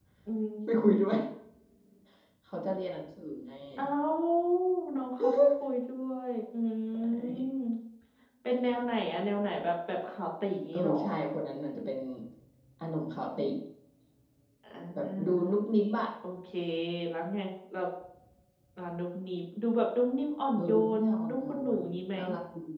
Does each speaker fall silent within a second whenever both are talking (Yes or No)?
No